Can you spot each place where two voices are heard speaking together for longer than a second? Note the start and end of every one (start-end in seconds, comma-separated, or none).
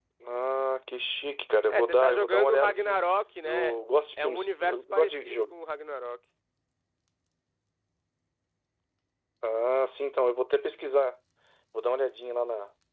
1.7-3.0, 4.2-5.5